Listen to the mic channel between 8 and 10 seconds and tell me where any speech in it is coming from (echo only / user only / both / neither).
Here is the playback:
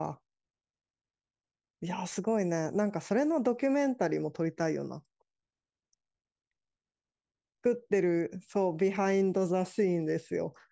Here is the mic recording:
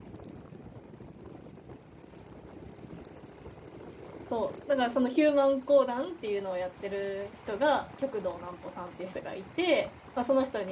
user only